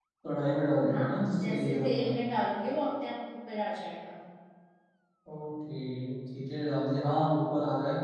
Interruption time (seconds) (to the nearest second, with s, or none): 1 s